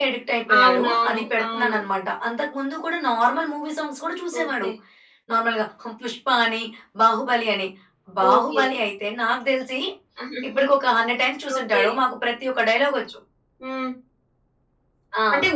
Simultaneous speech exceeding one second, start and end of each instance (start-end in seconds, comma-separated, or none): 0.6-1.8